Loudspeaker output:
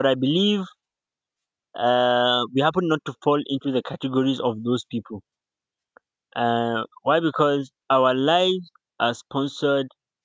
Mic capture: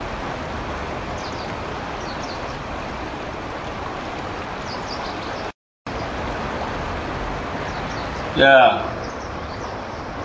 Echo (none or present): none